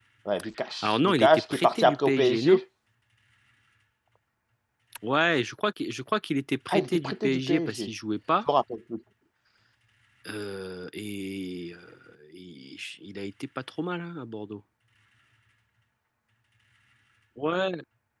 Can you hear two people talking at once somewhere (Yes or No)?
Yes